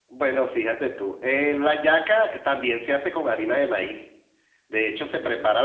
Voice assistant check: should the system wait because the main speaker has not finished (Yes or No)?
Yes